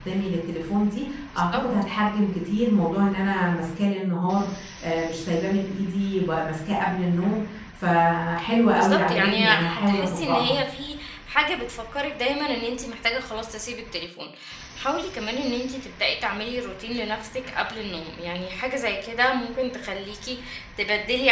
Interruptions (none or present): present